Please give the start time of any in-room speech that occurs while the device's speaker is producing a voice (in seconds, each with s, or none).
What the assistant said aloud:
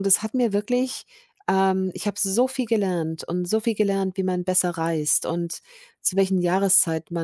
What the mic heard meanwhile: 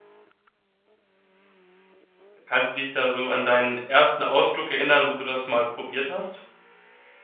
2.5 s